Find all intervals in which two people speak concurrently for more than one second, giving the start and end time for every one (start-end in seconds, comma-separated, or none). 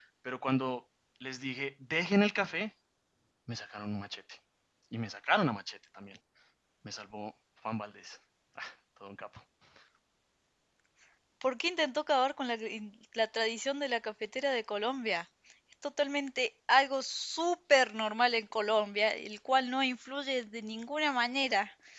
none